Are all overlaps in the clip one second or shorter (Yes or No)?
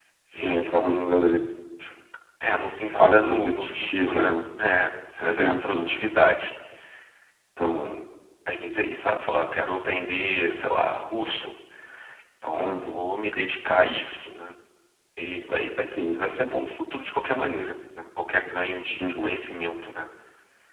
No